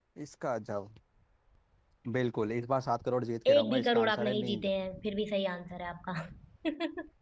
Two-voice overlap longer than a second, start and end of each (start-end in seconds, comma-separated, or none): 3.5-4.7